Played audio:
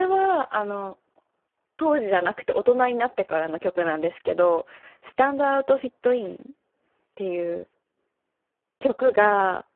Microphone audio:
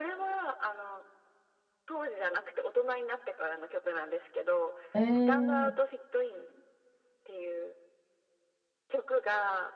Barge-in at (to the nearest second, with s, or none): 5 s